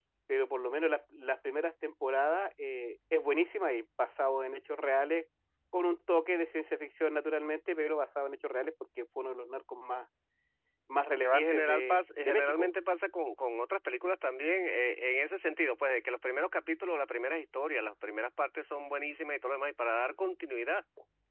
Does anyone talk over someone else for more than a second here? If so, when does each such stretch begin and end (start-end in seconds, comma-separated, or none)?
11.3-12.7